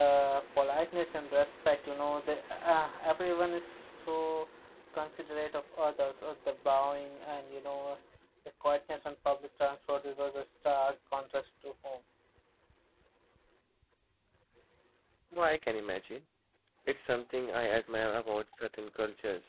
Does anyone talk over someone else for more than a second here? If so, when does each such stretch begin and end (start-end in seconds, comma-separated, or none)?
none